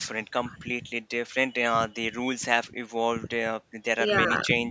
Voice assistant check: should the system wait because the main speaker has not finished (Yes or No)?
Yes